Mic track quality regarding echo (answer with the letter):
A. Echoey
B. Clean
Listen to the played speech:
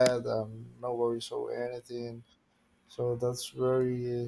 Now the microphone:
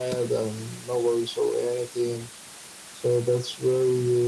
A